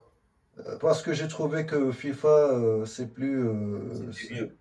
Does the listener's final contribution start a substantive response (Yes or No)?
No